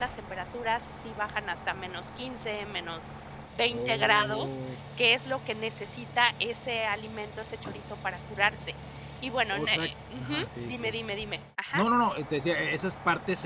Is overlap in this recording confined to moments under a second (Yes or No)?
No